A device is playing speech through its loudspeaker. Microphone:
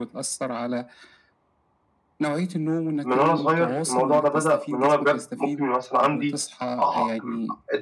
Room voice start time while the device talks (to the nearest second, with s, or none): 3 s